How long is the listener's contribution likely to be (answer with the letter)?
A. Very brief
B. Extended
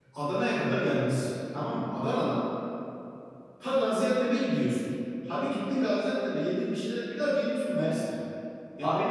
B